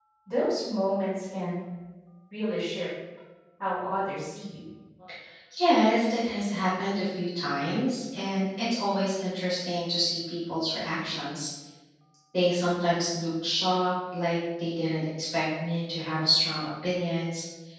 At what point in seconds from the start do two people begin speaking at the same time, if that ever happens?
none

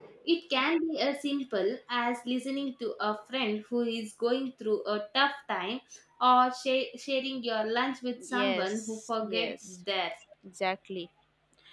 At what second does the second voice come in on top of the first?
8 s

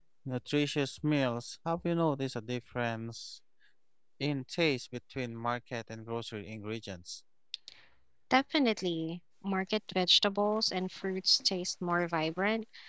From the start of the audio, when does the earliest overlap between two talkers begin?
none

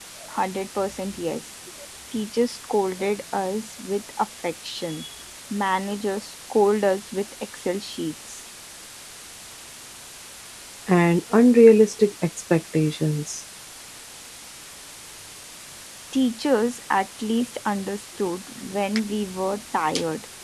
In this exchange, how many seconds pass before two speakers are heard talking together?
none

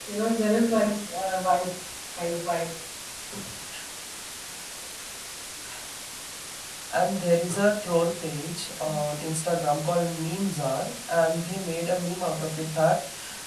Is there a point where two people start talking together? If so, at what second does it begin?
none

